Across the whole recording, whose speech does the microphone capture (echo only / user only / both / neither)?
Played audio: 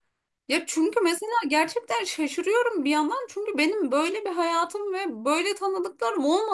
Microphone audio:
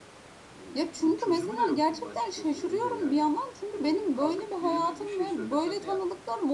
both